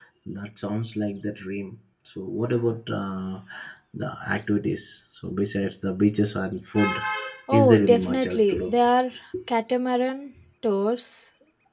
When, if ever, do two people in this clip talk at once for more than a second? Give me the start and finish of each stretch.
7.5-8.7

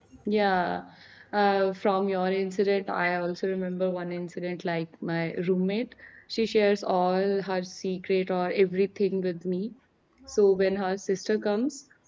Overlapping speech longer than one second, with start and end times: none

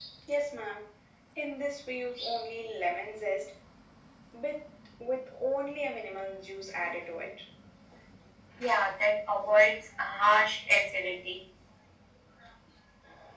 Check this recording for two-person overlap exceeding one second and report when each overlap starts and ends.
none

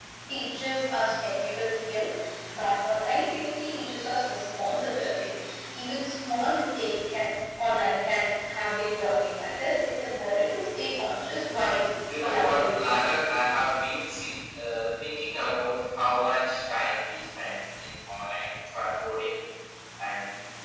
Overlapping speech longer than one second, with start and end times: 12.2-13.4

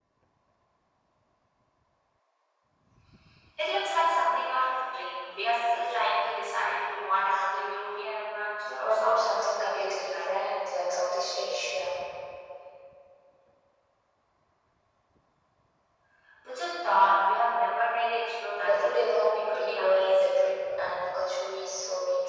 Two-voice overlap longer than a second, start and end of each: 8.8-10.3, 18.6-20.5

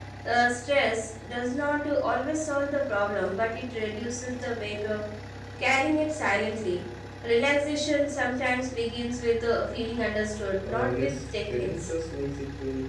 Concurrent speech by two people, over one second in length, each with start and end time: 10.6-11.9

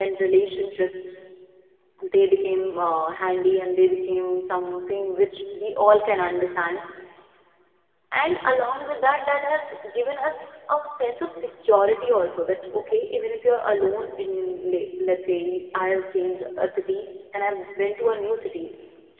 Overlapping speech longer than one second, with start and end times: none

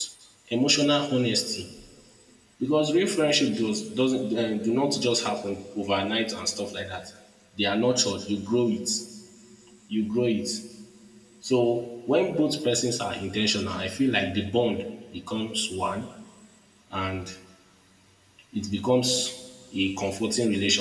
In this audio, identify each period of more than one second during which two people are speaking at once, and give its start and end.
none

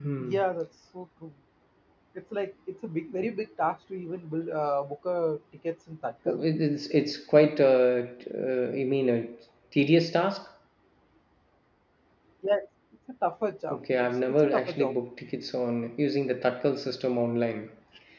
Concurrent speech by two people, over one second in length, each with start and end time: 13.7-14.9

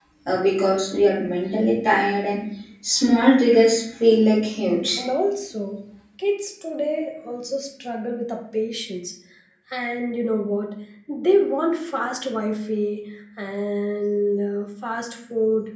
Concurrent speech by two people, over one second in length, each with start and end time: none

